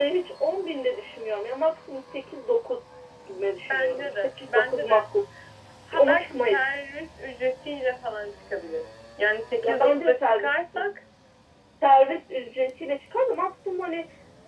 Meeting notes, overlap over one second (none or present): present